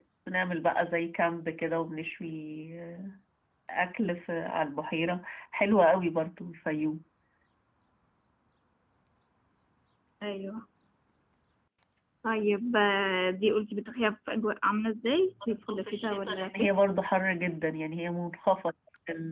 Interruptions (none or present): present